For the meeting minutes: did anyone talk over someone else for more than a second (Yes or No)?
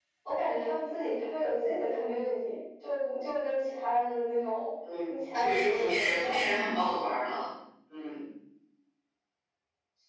Yes